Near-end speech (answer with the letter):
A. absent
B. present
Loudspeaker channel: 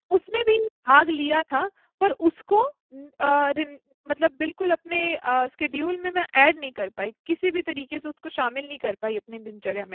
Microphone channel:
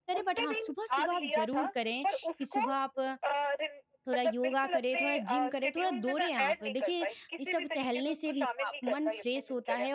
B